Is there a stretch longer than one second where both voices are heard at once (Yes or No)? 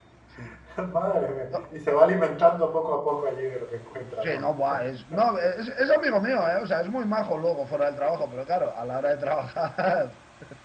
No